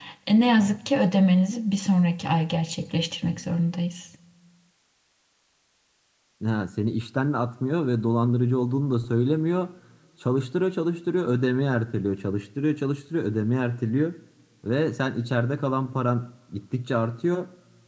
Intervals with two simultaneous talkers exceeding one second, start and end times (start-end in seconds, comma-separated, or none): none